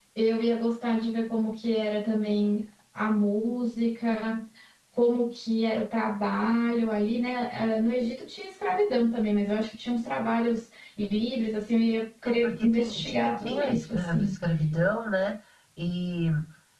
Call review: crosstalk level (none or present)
present